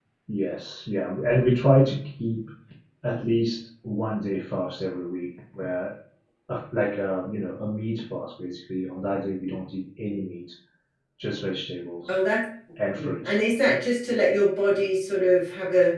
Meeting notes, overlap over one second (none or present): none